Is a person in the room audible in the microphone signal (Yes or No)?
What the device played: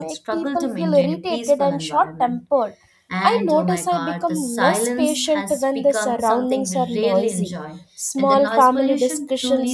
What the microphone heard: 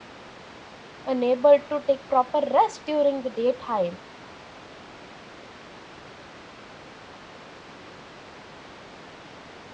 Yes